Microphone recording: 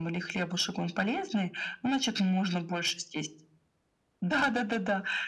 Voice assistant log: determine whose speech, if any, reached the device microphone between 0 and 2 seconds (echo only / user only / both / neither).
echo only